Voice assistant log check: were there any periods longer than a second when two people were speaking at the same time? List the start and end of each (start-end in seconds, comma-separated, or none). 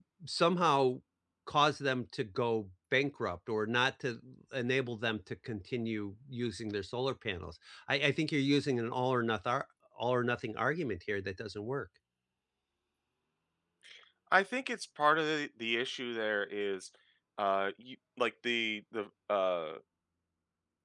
none